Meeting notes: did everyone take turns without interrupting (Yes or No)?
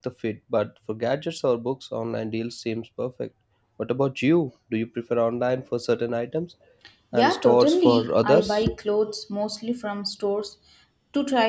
No